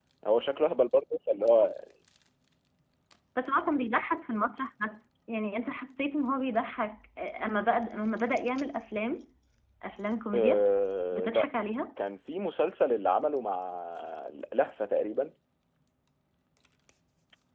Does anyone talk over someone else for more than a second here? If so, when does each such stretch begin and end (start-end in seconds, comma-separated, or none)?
none